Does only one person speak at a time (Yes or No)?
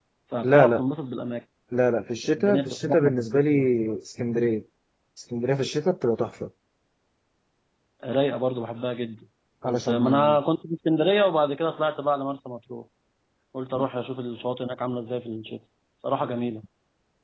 No